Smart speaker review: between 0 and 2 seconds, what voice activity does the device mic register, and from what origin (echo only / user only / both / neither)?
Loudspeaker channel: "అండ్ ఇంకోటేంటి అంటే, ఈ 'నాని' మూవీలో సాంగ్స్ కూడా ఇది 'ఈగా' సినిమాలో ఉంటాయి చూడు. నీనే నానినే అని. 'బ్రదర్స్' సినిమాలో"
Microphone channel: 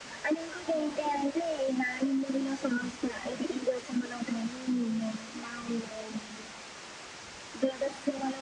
echo only